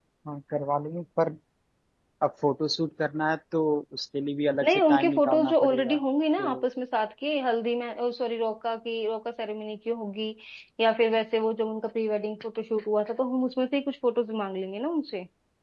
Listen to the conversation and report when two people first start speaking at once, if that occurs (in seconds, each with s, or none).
4.6 s